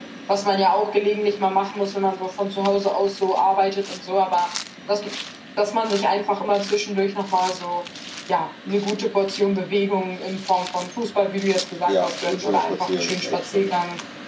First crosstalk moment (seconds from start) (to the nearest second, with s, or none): 12 s